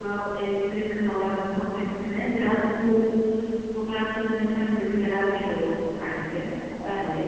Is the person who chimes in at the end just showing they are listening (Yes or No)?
Yes